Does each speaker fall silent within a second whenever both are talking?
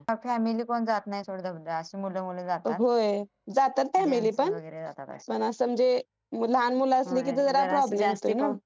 No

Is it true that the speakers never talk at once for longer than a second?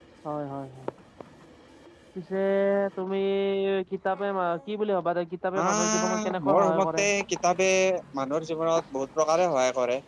No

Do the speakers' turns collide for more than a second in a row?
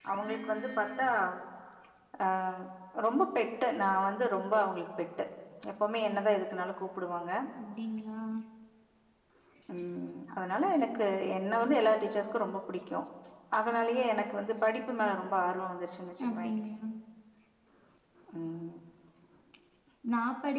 No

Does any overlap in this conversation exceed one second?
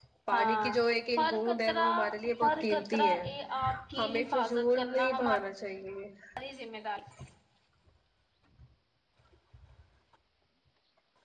Yes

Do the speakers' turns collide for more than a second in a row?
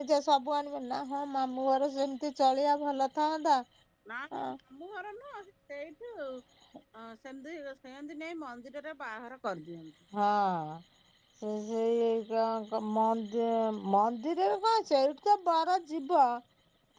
No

